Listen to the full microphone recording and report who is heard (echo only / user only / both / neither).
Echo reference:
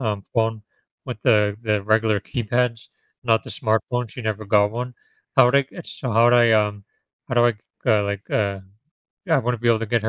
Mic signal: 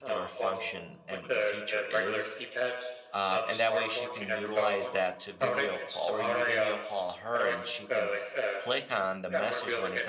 both